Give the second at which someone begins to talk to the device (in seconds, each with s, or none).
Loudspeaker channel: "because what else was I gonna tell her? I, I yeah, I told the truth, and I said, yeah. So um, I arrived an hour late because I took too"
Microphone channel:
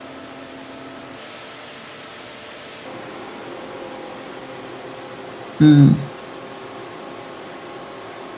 5.6 s